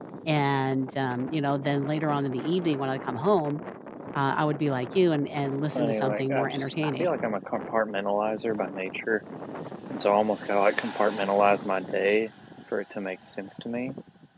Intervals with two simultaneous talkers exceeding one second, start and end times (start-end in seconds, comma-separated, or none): 5.7-7.2